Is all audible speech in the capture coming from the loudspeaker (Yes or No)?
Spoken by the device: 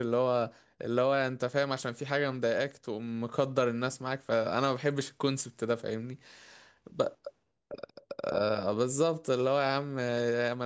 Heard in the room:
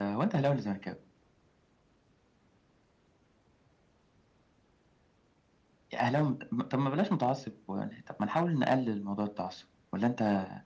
No